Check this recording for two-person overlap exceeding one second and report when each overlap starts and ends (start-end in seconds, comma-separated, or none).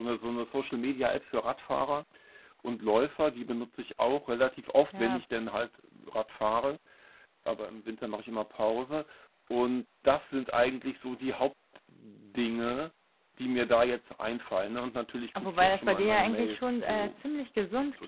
15.4-17.2